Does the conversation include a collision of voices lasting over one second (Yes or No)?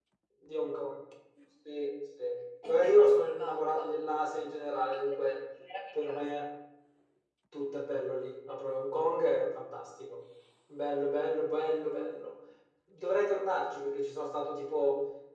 Yes